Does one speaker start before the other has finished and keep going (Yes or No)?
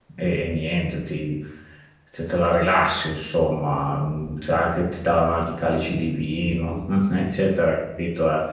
No